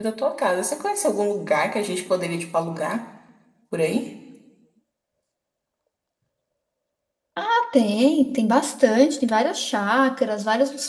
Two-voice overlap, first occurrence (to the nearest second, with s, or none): none